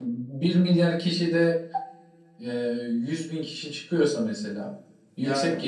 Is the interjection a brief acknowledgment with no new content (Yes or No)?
Yes